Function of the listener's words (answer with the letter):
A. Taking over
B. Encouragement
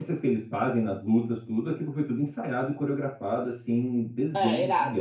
A